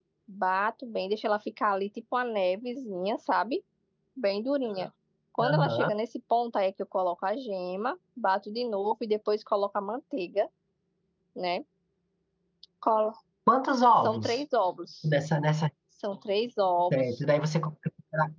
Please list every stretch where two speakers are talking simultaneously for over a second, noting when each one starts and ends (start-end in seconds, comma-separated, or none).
none